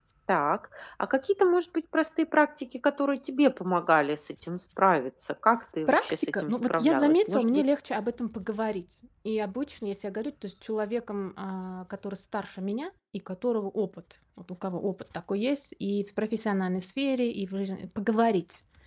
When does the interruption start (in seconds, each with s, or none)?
5.9 s